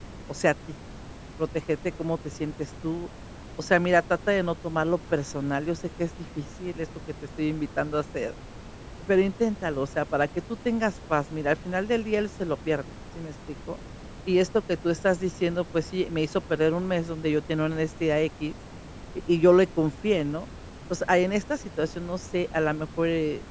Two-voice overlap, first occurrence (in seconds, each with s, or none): none